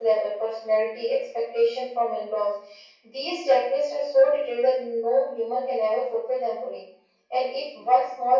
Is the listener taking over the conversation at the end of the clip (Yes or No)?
No